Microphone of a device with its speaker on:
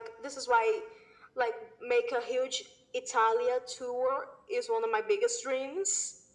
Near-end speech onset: none

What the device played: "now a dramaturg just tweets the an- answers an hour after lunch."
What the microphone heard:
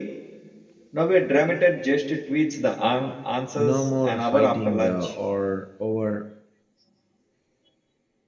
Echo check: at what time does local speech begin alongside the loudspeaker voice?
4 s

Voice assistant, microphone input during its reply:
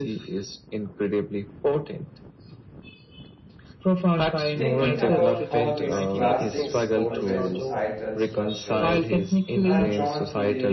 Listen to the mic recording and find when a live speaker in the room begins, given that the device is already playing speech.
5 s

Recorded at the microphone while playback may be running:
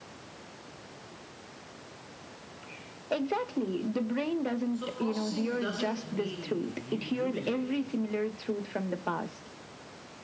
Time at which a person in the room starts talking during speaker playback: 5 s

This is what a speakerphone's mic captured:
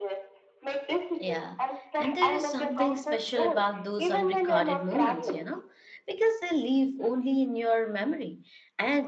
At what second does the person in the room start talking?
1 s

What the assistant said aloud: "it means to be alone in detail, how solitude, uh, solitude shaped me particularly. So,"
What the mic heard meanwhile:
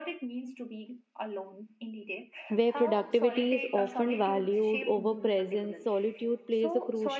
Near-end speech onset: 2 s

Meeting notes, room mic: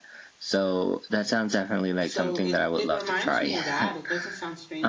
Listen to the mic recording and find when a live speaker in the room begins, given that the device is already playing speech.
2 s

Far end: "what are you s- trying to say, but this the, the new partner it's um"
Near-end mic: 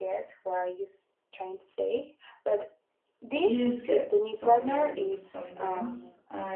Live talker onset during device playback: 3 s

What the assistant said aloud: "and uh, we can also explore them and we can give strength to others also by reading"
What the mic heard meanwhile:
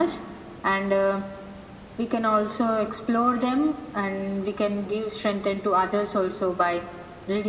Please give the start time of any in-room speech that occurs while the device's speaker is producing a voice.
none

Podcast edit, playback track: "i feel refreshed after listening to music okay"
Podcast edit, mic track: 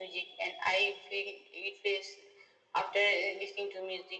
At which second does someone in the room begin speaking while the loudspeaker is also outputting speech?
none

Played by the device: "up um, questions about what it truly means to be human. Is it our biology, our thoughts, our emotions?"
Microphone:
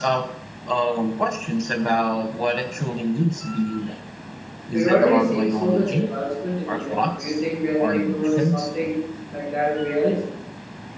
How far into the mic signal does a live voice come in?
5 s

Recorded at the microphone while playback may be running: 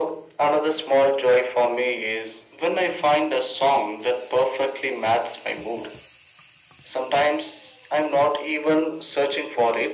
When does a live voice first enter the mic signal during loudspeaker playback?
none

